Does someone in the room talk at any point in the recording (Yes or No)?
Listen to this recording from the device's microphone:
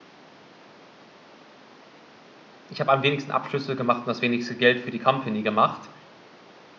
Yes